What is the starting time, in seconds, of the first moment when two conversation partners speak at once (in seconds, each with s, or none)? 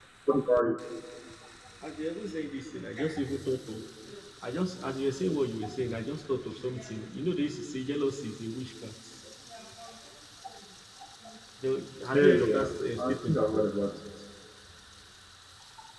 12.1 s